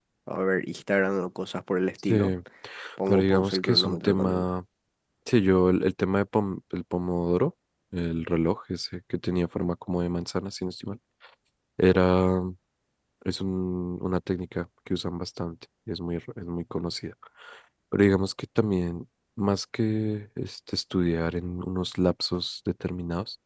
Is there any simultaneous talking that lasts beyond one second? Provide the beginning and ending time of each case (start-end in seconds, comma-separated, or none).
3.1-4.4